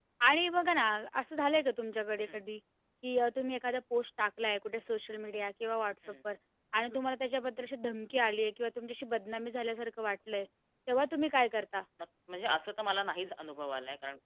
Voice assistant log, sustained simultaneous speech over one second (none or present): none